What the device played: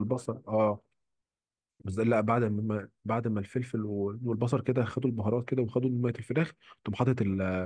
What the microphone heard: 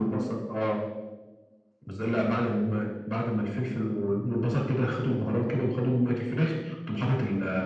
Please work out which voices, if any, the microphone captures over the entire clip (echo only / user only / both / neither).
echo only